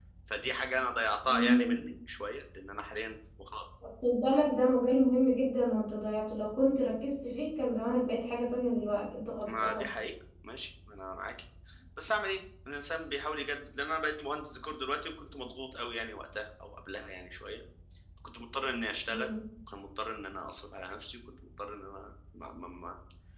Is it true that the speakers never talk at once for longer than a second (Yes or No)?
Yes